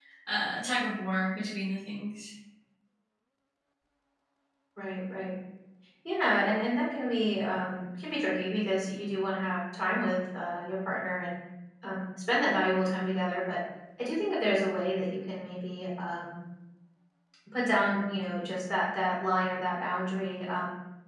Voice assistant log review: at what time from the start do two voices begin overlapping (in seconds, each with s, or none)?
none